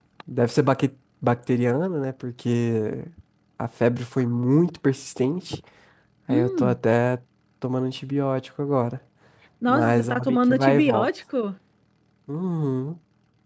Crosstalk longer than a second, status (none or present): present